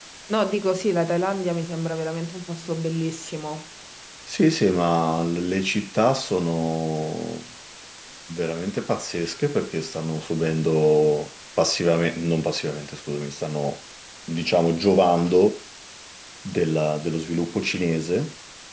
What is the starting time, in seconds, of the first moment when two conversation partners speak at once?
none

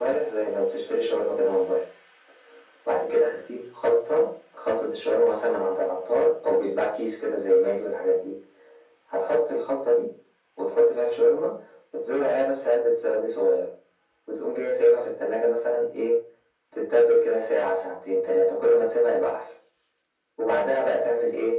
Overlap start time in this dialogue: none

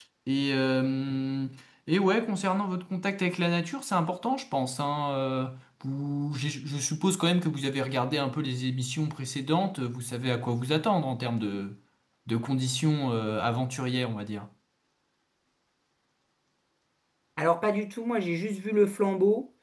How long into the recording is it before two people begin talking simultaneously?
none

